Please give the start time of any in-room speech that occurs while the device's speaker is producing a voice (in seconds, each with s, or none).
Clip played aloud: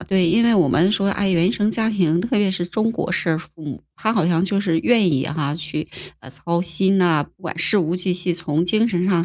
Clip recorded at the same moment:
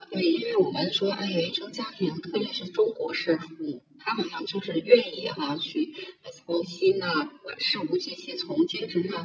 none